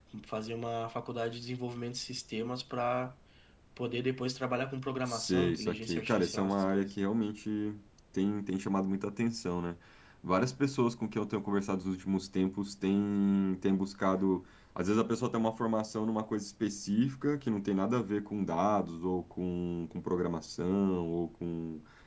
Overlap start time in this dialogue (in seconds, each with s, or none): 5.1 s